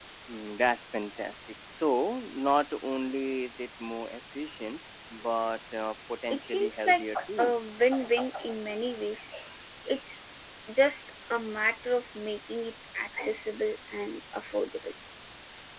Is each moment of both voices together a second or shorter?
No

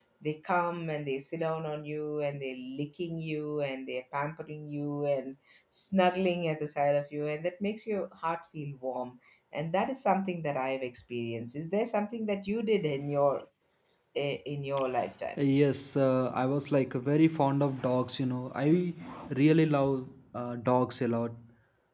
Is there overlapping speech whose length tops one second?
No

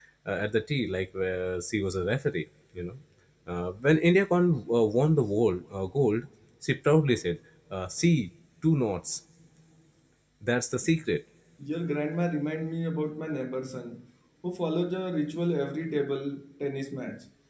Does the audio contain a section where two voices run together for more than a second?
No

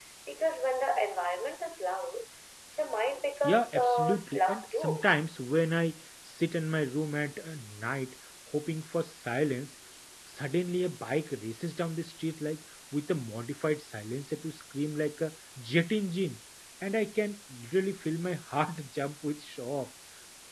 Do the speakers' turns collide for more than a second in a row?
Yes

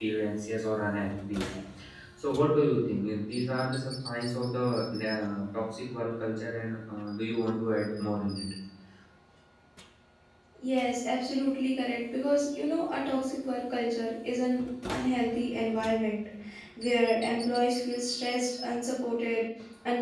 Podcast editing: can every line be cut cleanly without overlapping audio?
Yes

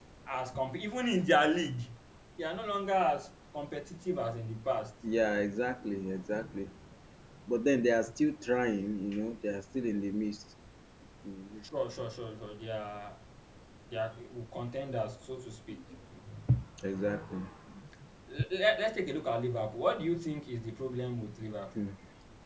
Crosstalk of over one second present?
No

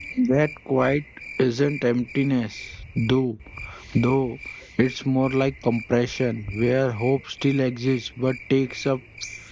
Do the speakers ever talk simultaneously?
No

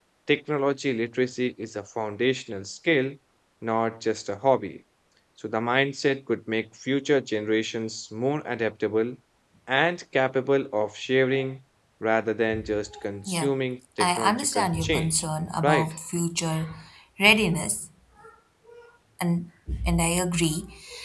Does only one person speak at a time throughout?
No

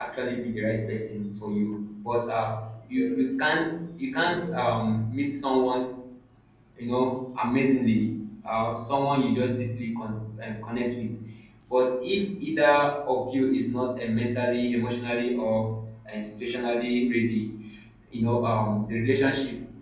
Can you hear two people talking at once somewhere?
No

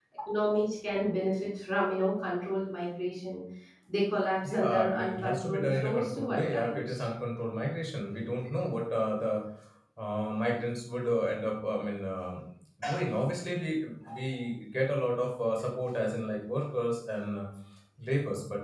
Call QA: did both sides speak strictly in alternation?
No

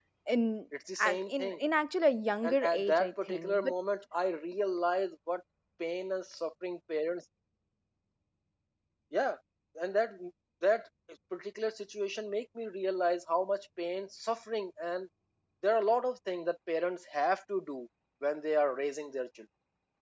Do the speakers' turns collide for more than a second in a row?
Yes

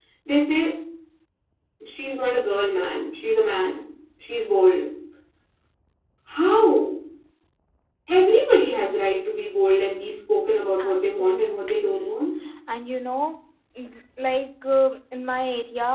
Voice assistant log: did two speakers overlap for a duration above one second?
Yes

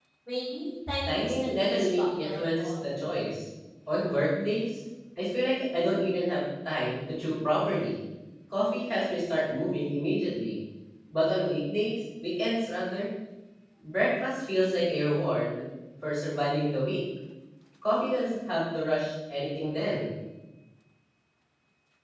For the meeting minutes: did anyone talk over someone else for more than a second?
Yes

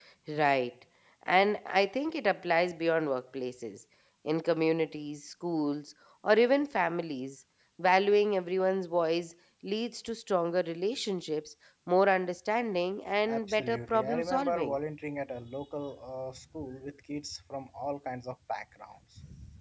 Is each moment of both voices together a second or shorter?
No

